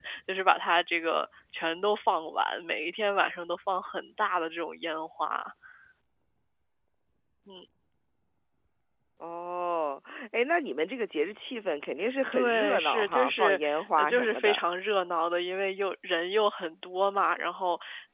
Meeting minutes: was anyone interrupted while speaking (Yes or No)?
Yes